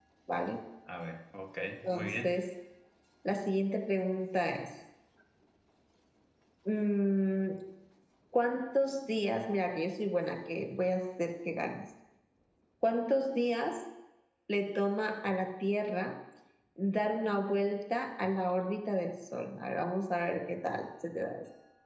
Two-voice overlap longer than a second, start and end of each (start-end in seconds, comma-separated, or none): none